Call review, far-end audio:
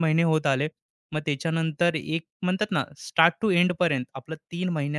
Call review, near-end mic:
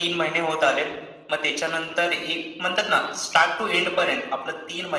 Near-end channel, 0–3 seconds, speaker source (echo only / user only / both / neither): echo only